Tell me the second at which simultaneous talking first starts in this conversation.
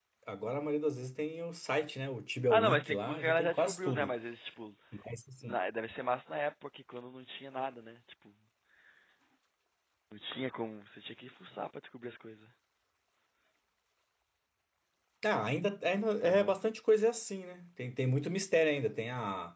2.5 s

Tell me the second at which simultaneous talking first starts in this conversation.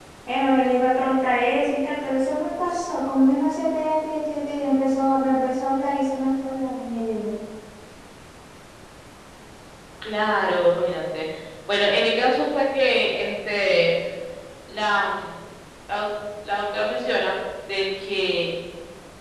none

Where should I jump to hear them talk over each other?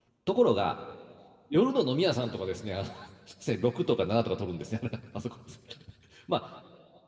none

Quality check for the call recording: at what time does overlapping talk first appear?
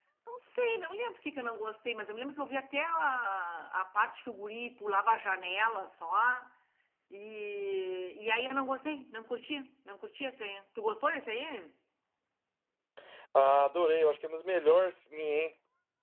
none

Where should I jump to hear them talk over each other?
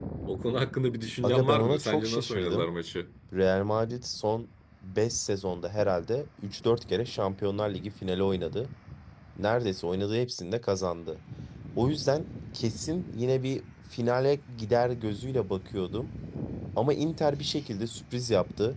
1.2 s

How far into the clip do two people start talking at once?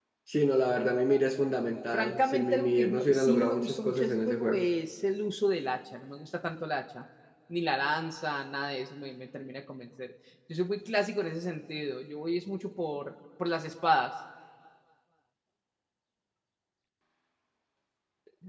1.9 s

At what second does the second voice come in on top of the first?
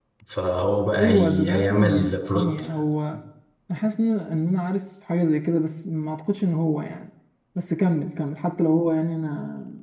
1.0 s

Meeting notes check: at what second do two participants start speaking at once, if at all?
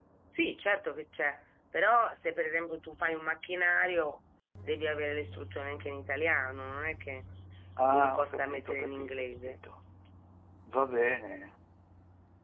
7.9 s

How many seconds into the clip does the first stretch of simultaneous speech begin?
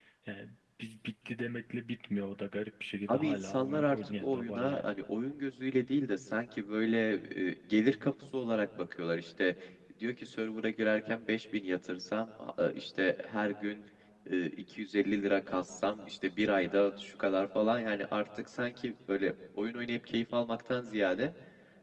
3.1 s

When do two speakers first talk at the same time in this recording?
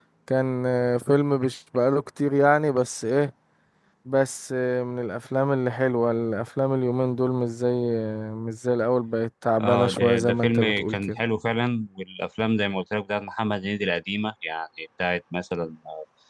9.6 s

